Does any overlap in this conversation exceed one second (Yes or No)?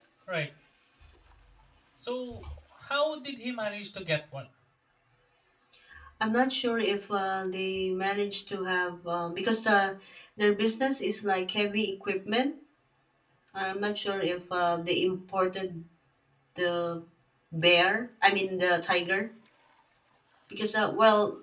No